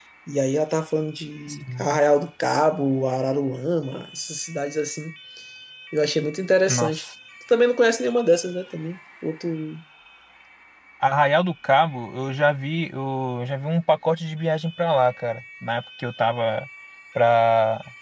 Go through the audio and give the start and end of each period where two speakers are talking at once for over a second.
none

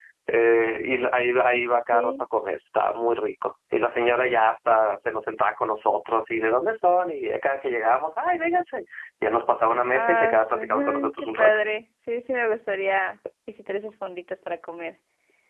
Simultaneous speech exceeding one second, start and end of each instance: 9.9-11.6

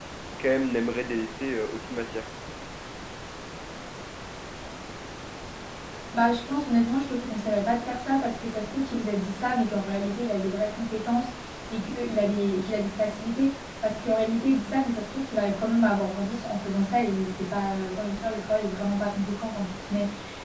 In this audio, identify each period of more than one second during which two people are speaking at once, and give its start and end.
none

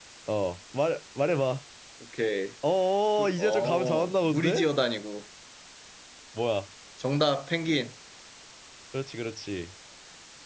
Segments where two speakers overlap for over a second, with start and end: 3.2-4.7

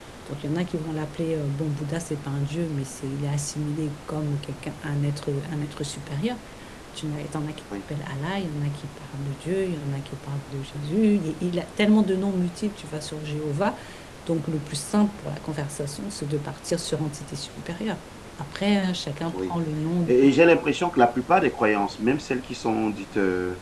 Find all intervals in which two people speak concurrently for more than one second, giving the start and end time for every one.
none

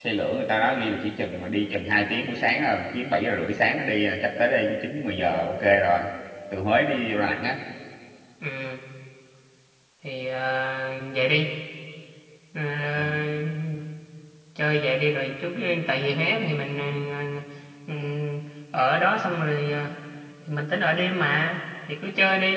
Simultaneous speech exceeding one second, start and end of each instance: none

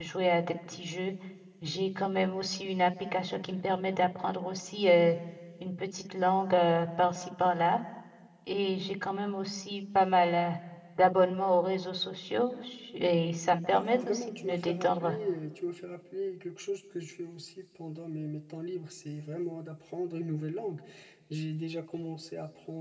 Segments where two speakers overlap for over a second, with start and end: 13.7-15.1

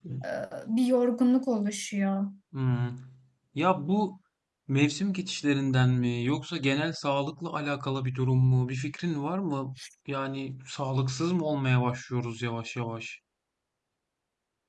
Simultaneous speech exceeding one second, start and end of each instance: none

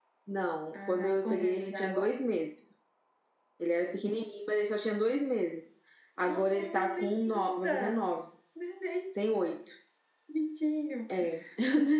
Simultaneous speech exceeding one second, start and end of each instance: 0.7-2.1, 6.2-8.1

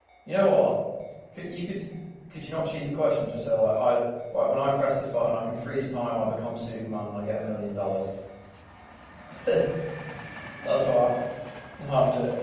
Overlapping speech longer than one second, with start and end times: none

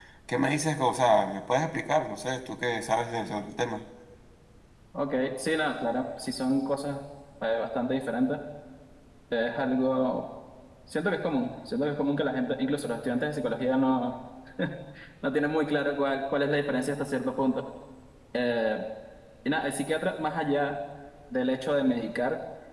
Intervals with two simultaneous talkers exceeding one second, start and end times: none

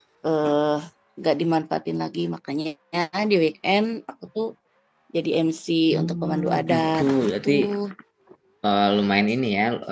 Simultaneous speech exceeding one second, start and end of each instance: 6.0-7.5

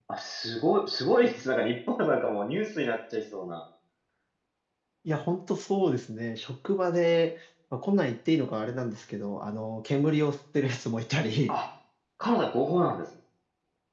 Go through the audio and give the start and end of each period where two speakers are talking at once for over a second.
none

